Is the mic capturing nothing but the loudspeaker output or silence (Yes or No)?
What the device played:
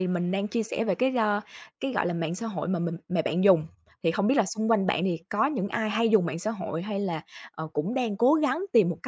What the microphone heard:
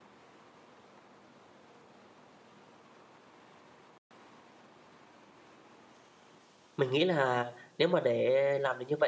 No